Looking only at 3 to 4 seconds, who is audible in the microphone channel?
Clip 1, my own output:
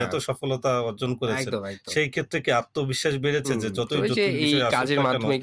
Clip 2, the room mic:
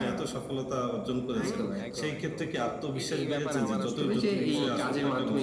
both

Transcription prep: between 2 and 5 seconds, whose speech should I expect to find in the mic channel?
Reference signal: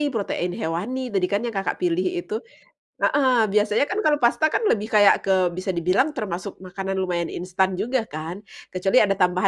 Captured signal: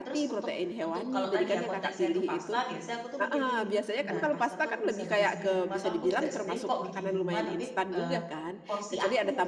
both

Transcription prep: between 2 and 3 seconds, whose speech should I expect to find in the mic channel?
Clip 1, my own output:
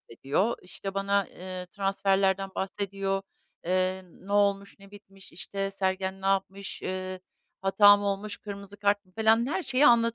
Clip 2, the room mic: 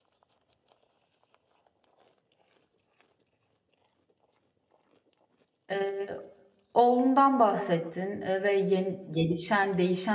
neither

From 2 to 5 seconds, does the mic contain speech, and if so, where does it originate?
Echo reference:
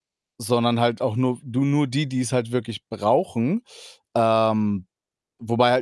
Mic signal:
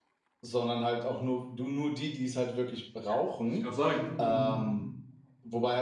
both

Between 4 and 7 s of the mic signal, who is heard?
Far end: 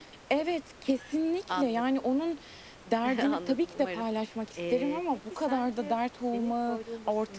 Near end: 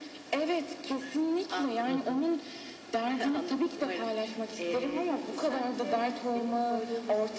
echo only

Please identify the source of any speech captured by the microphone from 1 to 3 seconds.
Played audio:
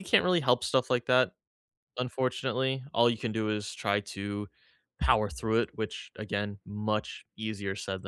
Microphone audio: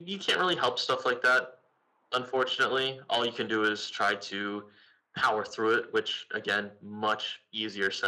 echo only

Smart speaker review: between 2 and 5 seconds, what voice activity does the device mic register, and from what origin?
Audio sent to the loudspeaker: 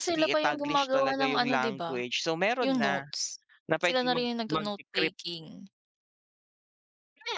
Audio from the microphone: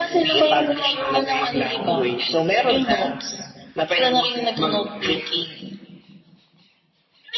echo only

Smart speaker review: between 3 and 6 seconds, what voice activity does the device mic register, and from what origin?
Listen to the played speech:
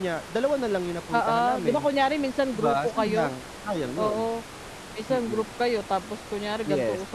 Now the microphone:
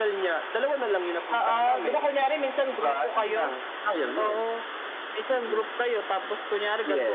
echo only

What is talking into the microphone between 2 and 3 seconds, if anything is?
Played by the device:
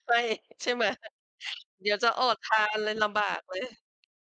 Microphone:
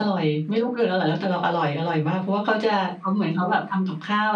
user only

